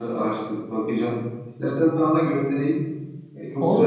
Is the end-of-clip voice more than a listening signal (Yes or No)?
Yes